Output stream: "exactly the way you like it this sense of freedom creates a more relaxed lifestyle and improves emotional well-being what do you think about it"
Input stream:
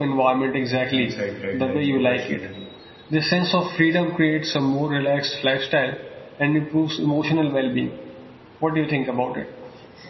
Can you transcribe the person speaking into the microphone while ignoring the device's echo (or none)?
and set deadlines professionally.